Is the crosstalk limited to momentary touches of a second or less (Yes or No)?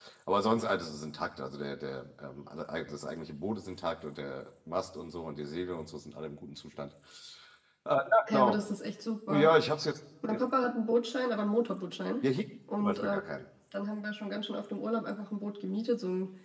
Yes